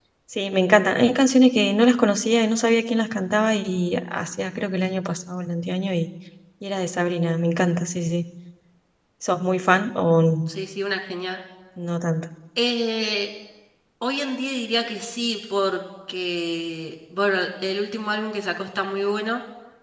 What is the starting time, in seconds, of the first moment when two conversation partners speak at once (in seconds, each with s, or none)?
none